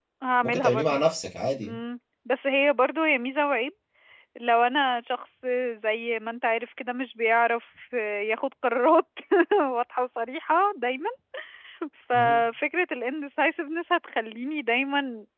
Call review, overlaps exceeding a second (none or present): none